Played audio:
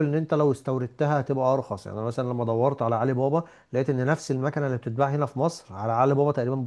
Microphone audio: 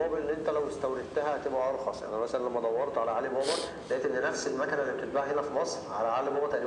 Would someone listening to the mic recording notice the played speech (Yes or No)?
Yes